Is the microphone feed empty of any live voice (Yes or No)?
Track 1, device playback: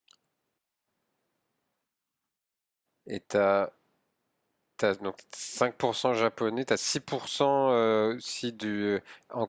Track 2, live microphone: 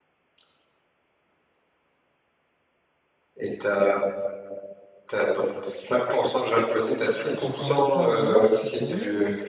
No